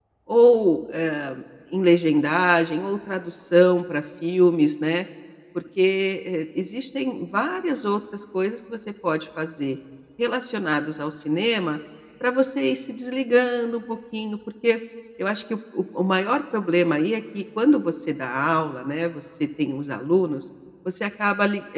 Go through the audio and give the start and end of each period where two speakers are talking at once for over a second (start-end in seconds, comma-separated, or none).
none